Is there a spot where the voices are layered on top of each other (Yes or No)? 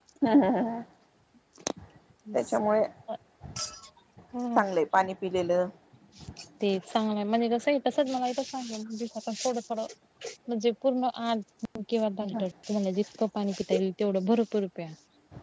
No